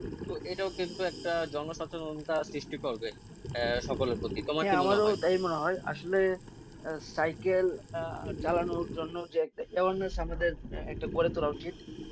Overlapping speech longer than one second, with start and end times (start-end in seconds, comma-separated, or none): none